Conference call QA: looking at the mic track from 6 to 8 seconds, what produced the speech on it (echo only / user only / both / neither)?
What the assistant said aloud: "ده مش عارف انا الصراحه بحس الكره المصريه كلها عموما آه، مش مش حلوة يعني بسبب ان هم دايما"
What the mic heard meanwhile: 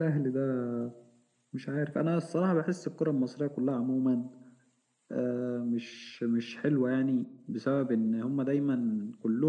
echo only